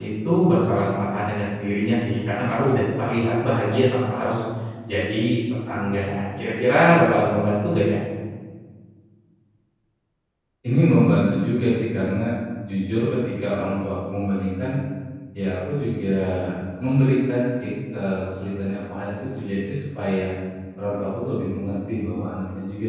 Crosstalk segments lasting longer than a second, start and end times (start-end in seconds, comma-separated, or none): none